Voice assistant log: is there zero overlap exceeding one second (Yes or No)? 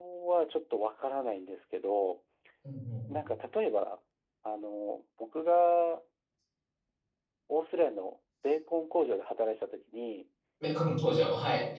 Yes